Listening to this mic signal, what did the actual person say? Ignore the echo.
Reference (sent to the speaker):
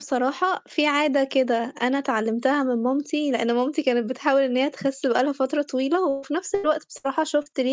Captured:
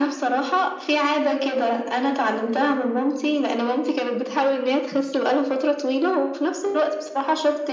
none

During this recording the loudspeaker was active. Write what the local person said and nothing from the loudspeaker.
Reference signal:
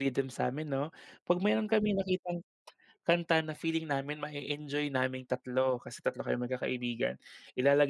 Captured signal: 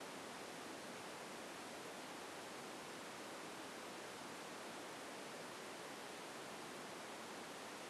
none

